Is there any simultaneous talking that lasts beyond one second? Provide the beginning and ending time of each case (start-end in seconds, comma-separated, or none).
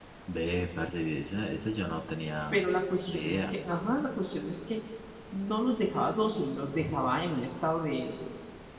none